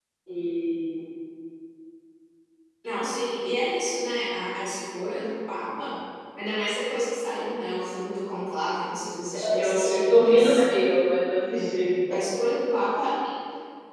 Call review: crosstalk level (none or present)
present